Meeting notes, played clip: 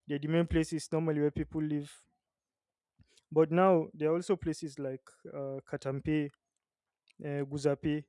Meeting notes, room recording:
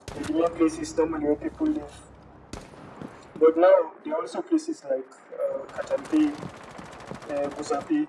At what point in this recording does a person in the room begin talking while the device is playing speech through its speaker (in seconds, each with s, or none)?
none